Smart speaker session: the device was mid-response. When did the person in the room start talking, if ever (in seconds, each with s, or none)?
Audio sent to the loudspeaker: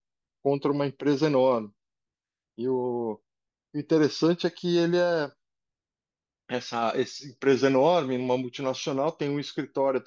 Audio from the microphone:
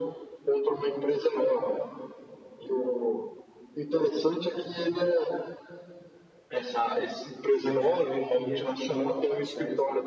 7.6 s